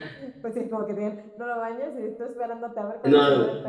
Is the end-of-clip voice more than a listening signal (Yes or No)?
Yes